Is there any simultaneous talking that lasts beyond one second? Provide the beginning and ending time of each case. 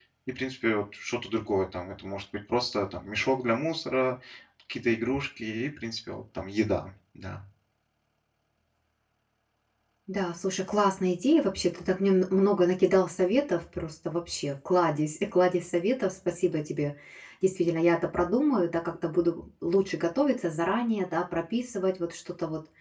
none

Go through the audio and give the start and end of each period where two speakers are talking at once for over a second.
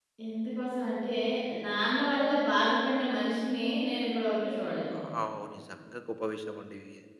none

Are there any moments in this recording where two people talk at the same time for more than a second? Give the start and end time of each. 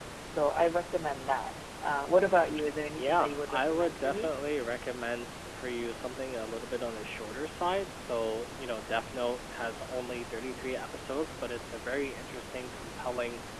3.0-4.3

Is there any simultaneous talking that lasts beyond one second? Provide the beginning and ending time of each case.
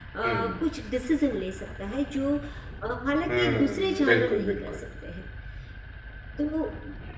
3.4-4.7

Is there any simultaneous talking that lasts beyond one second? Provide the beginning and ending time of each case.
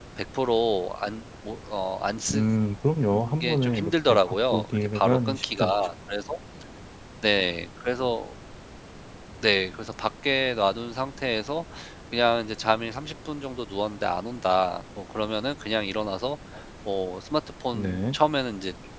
3.4-5.6

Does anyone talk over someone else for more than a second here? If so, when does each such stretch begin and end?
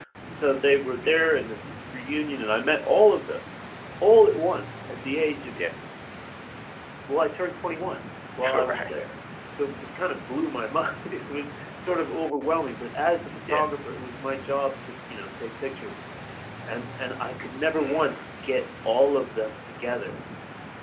none

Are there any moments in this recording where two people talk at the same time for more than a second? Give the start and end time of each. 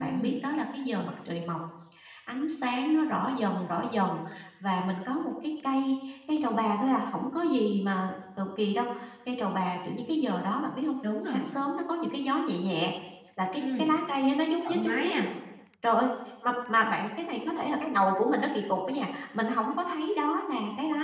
none

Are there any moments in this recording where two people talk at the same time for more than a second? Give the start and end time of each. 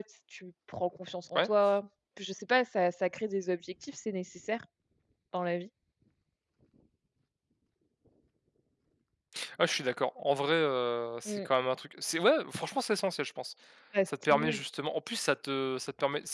none

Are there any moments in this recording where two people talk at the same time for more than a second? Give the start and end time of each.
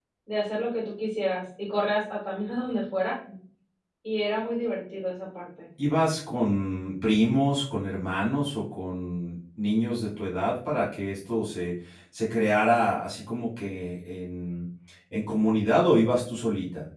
none

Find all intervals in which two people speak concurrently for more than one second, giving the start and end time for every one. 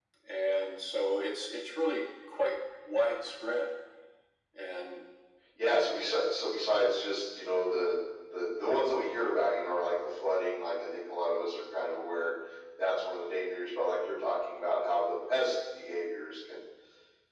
none

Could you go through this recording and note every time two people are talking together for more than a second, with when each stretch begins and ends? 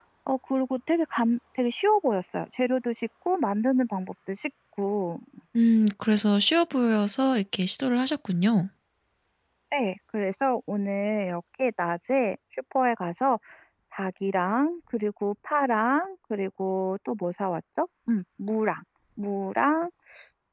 none

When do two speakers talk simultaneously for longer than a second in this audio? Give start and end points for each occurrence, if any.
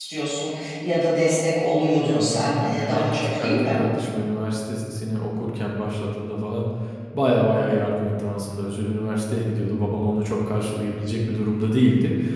2.0-3.8

